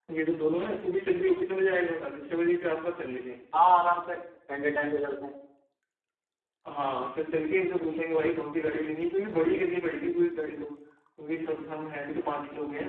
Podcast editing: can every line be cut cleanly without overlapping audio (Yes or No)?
Yes